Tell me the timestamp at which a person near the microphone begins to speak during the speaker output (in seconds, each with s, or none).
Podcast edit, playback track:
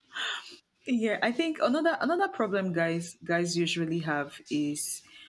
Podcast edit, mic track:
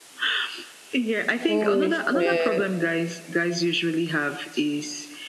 1.4 s